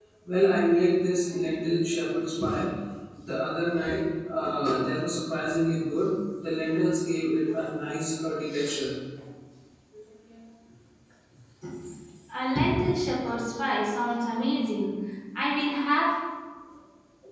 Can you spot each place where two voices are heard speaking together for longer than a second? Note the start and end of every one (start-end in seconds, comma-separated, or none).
none